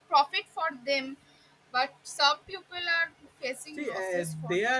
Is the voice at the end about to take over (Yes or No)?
Yes